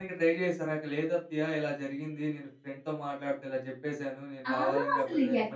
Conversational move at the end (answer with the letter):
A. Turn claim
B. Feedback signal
A